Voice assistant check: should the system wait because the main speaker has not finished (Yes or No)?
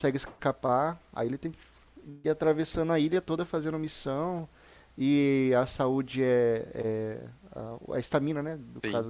Yes